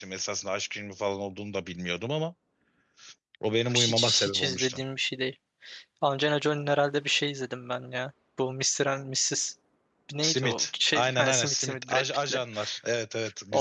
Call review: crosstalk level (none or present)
present